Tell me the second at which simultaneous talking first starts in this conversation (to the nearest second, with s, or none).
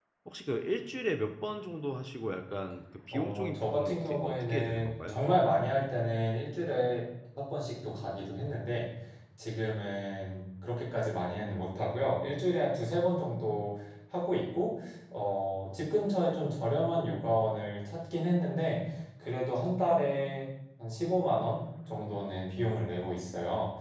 3 s